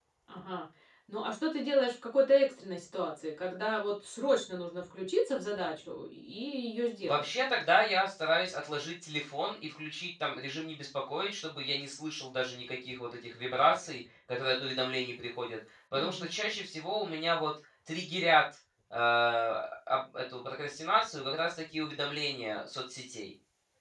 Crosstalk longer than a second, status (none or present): none